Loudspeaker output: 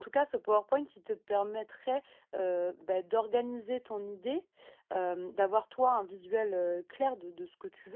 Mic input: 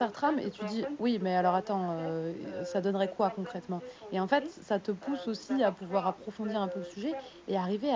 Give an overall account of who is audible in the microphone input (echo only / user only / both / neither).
both